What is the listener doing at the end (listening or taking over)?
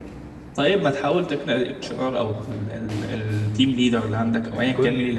taking over